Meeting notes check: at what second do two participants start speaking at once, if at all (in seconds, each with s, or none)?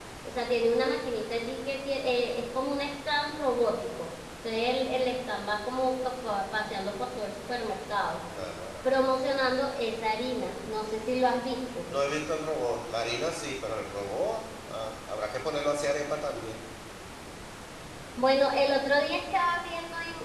none